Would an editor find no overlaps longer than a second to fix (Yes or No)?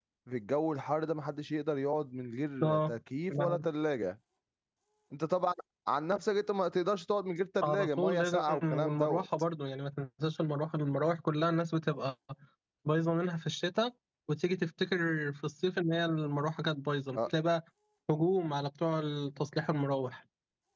No